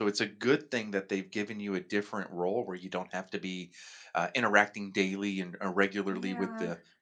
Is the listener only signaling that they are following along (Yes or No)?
Yes